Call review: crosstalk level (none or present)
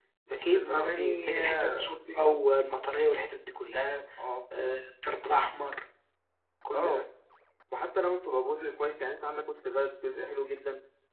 present